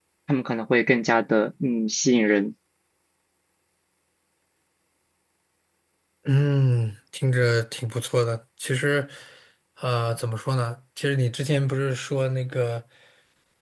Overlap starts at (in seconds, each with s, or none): none